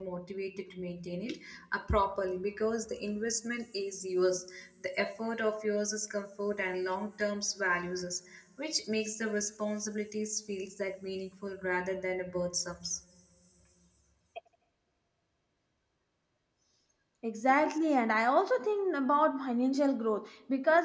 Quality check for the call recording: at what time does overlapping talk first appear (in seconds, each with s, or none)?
none